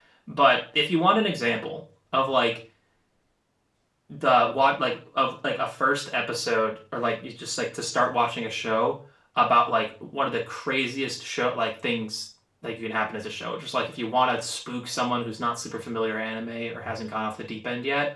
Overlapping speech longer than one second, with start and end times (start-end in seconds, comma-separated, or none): none